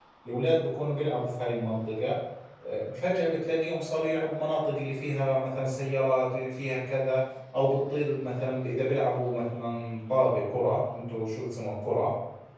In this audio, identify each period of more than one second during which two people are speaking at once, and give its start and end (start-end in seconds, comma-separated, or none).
none